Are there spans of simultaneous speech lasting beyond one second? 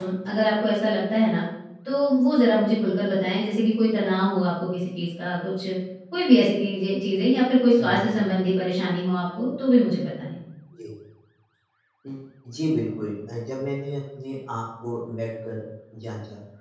No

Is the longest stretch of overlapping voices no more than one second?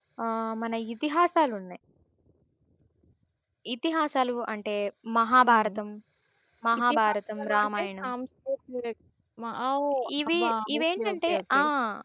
No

